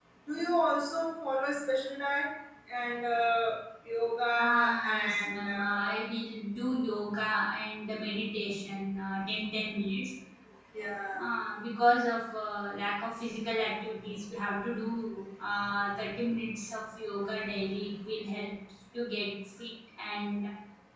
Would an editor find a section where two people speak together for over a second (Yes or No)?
Yes